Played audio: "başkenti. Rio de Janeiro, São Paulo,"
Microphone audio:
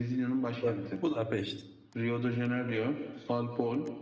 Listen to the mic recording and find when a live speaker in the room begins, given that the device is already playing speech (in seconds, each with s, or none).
0.6 s